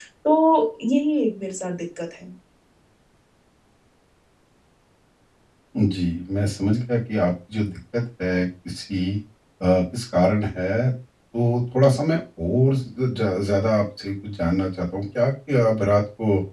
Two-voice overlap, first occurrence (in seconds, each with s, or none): none